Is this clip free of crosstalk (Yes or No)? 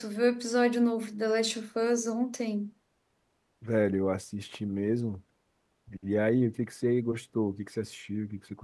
Yes